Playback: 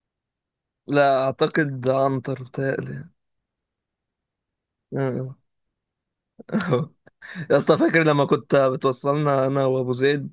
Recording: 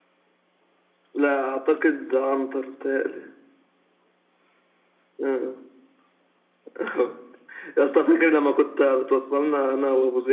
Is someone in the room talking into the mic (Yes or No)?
No